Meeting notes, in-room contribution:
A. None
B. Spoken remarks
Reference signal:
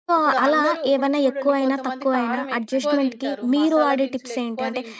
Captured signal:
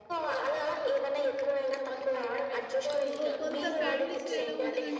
B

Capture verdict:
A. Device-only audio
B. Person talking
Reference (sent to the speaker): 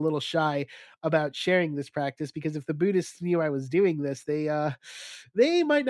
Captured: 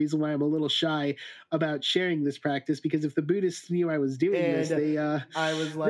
B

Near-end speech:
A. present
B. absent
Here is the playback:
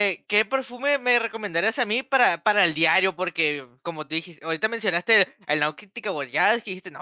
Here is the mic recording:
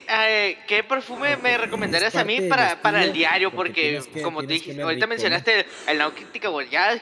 A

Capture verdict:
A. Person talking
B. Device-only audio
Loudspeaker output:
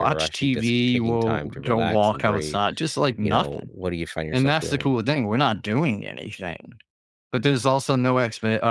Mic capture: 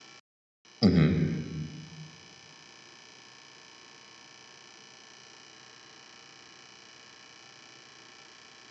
A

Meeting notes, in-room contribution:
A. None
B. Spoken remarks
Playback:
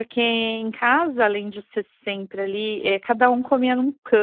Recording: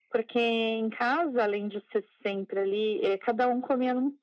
A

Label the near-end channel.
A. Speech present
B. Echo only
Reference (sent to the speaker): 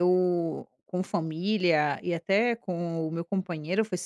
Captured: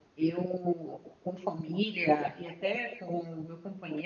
B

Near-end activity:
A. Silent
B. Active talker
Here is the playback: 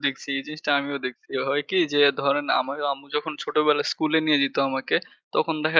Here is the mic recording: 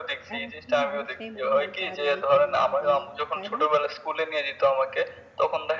B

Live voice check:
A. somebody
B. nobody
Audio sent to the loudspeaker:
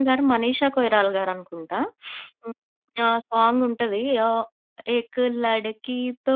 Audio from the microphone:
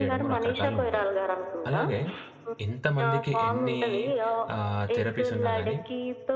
A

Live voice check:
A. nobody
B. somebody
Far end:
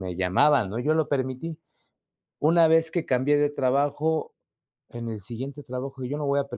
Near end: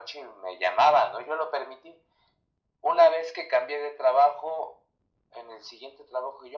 A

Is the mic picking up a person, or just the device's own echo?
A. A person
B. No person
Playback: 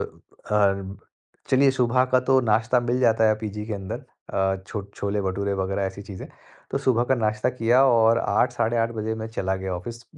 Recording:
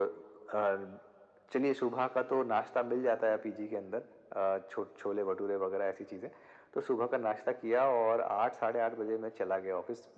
B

